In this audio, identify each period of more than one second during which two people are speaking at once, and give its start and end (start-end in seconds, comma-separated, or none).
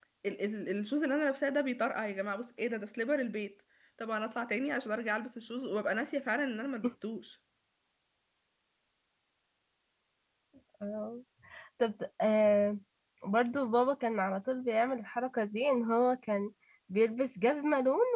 none